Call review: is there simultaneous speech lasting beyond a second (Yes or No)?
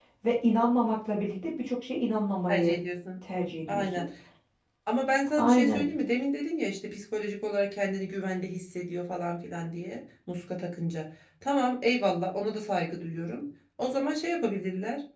No